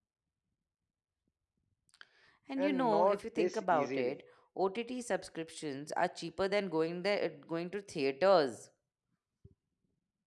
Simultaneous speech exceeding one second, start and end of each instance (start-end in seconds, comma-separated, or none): 2.6-4.2